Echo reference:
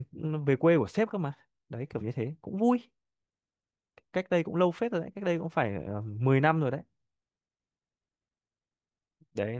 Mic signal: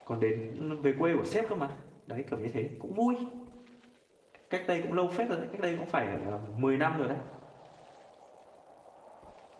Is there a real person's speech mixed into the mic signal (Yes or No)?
No